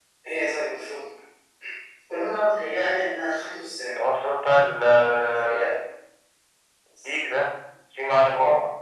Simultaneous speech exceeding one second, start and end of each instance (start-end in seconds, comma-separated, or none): none